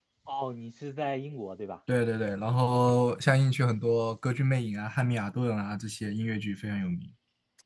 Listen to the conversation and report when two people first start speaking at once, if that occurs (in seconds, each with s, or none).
none